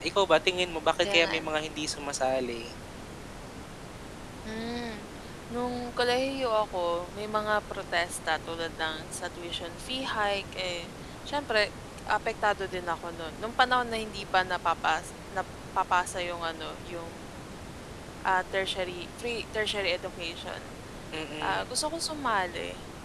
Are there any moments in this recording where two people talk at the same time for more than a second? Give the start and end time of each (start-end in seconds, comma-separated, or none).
none